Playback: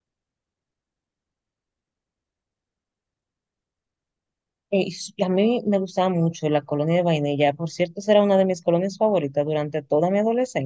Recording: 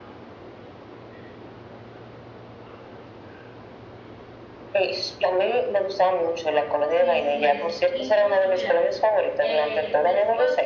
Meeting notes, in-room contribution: present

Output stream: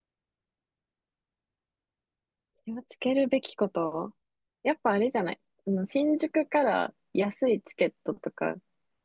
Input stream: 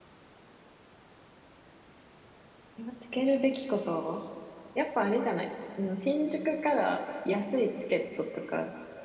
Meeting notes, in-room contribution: none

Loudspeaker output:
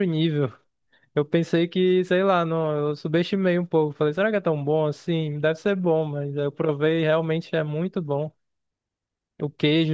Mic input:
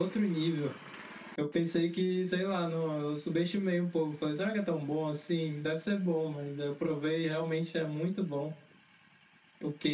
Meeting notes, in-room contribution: none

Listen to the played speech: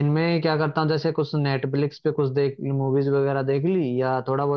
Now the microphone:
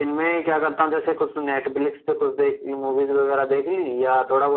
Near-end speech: none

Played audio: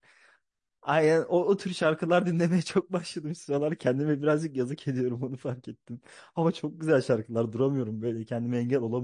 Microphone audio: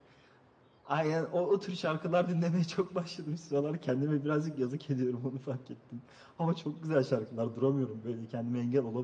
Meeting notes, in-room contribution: none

